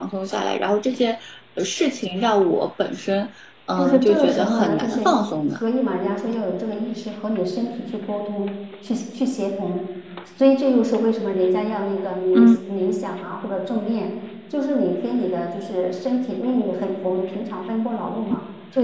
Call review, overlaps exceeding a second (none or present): present